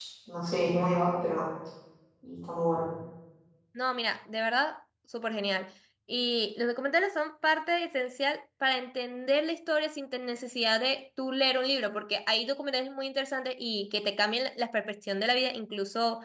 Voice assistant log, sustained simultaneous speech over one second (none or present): none